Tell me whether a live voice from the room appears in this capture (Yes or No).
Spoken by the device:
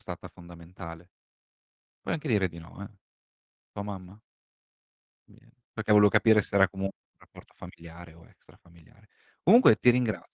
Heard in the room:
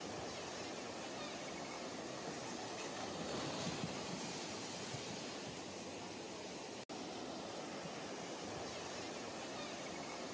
No